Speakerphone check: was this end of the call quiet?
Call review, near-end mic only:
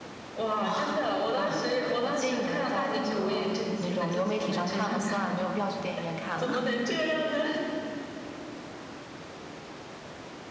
No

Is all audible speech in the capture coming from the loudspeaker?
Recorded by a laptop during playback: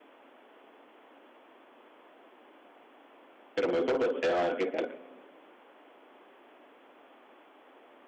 No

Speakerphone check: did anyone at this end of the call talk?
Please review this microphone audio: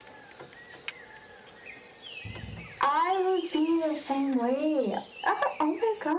No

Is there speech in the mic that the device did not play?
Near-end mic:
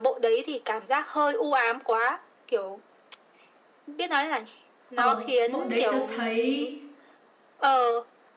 Yes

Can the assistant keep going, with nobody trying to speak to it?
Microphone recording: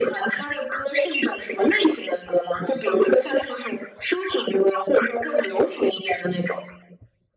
Yes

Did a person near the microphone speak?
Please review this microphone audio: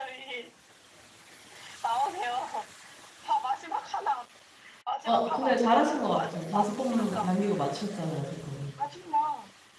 Yes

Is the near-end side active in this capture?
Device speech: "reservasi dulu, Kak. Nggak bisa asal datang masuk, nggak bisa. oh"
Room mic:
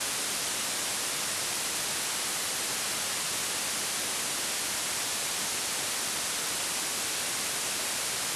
No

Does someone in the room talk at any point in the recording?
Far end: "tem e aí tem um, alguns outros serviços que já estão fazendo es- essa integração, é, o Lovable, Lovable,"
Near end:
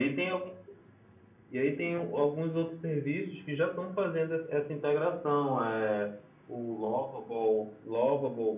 No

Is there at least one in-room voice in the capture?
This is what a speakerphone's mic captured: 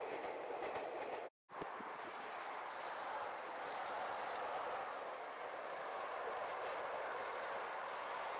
No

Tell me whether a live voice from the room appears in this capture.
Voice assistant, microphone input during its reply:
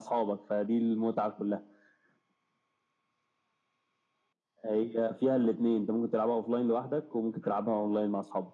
No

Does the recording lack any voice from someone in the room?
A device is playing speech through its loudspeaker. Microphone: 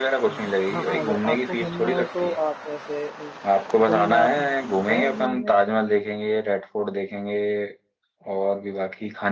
No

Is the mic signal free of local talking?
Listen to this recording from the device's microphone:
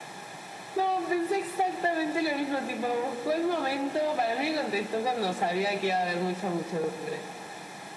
Yes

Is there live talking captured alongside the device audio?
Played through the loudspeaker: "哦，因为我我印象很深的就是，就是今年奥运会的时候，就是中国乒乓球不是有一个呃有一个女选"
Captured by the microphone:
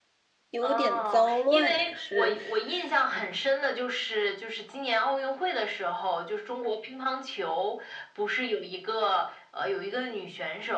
Yes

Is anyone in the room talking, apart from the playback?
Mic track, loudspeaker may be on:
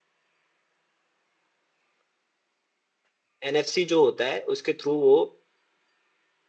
Yes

